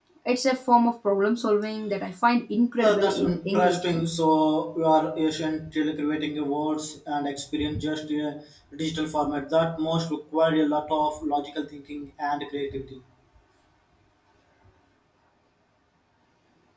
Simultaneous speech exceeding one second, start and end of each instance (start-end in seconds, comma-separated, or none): 2.8-4.0